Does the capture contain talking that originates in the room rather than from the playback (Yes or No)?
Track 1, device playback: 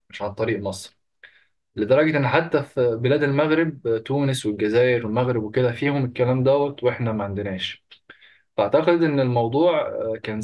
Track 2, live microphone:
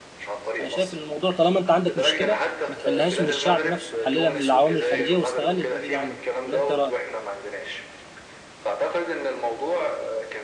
Yes